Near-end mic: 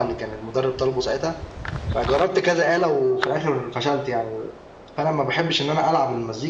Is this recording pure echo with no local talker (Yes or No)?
Yes